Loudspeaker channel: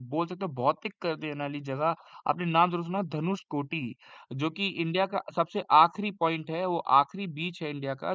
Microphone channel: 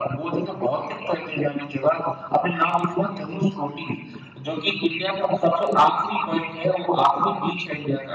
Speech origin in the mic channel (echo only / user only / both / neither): echo only